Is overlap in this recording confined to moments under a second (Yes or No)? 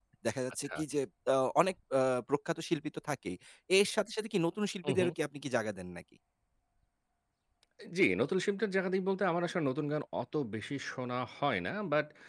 Yes